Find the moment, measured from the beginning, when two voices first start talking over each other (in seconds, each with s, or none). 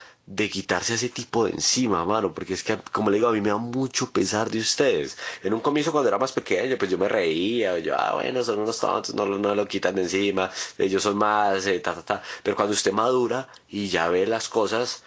none